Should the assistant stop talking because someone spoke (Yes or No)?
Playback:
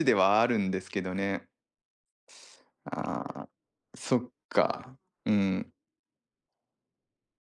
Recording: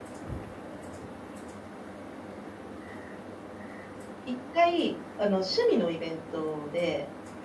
Yes